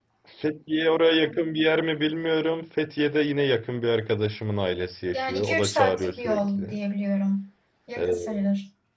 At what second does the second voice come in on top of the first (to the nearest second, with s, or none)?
5 s